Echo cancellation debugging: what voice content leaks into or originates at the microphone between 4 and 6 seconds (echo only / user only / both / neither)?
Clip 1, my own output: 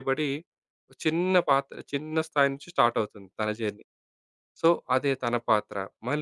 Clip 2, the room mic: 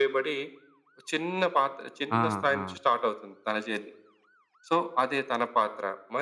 echo only